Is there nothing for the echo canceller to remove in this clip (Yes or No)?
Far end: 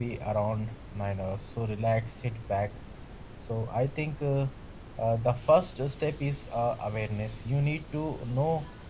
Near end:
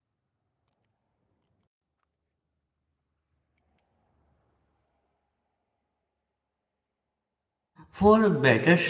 Yes